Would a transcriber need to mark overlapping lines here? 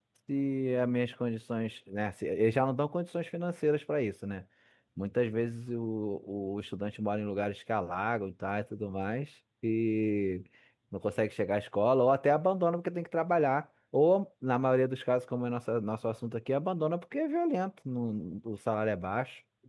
No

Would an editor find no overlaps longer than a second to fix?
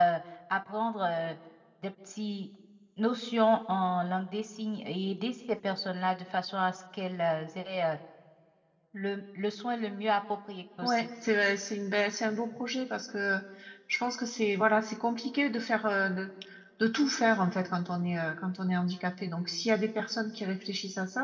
Yes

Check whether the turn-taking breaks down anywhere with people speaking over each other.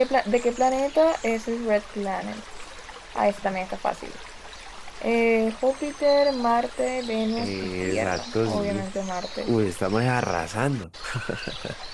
Yes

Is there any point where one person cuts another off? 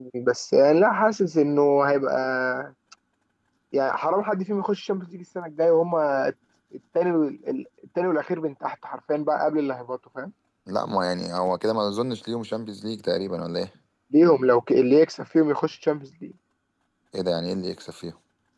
No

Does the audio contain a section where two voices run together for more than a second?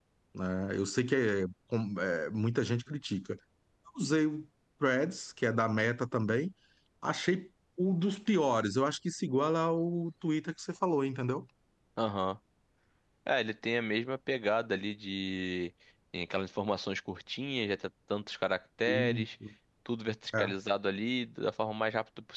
No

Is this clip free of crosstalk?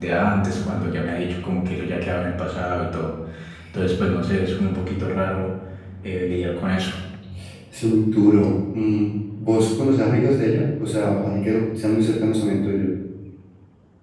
Yes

